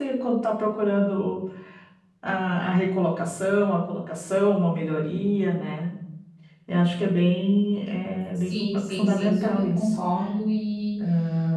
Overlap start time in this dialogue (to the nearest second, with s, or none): 8 s